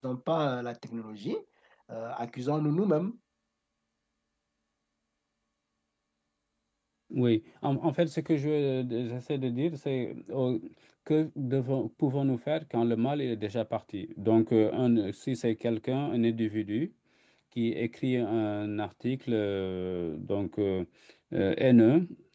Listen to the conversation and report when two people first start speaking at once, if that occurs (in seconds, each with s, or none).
none